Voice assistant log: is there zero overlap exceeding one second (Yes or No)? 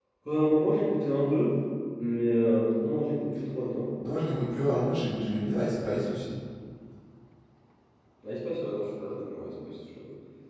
Yes